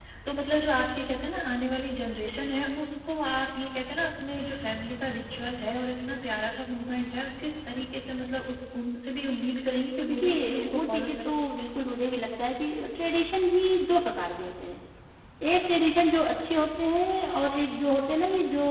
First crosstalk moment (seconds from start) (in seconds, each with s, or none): 10.0 s